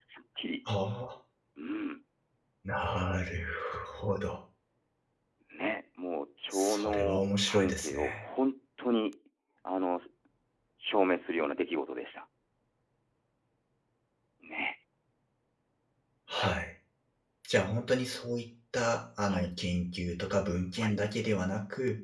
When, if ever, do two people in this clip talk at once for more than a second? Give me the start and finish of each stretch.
6.5-8.3

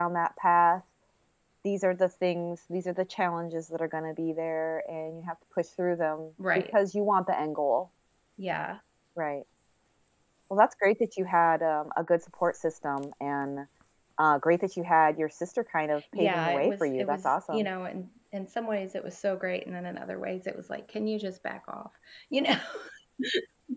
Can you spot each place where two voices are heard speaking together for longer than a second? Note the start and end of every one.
16.2-17.7

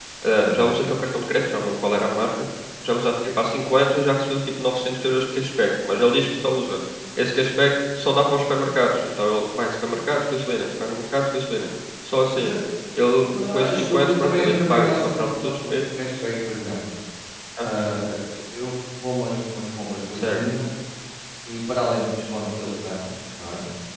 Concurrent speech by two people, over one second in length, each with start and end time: 13.3-15.8

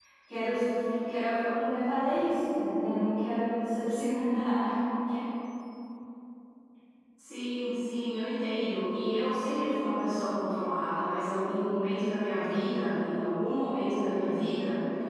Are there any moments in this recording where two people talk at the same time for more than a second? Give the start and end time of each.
none

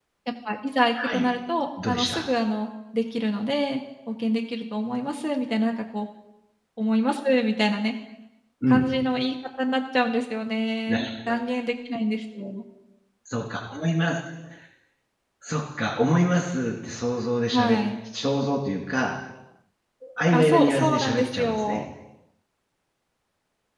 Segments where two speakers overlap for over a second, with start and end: 20.3-21.8

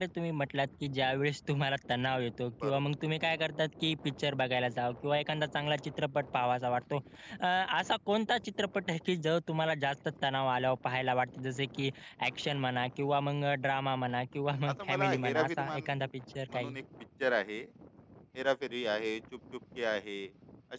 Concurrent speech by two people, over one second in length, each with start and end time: 14.7-15.9

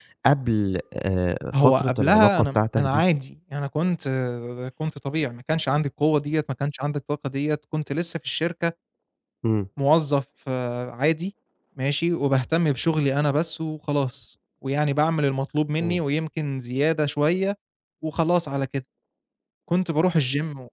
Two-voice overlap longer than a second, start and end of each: 1.5-3.0

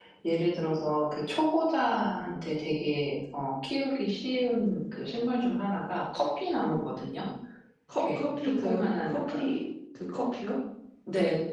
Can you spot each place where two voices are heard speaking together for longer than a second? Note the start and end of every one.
8.0-9.4

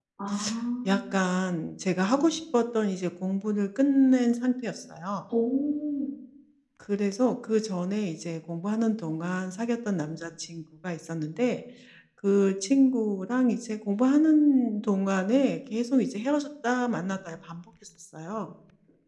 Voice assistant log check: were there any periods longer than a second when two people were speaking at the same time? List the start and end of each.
none

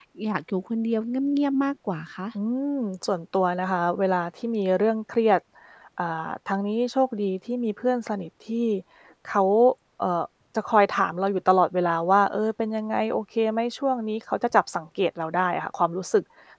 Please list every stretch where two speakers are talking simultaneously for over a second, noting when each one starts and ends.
none

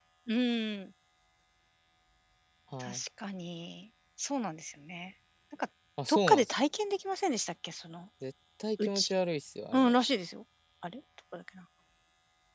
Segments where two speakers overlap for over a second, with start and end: none

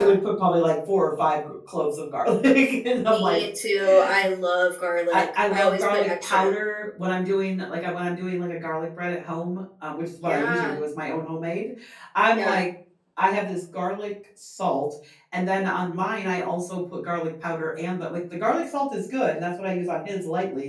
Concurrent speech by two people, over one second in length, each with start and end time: 5.1-6.5

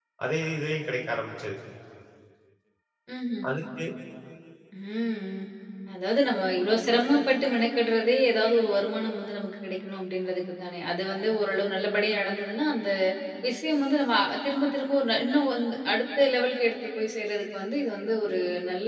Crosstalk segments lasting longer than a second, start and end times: none

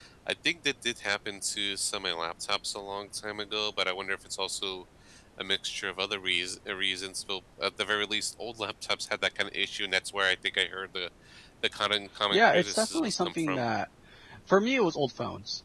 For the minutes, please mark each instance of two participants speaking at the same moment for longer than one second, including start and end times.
12.3-13.6

